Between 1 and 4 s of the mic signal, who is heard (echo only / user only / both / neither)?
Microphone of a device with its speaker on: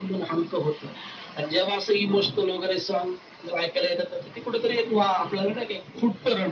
echo only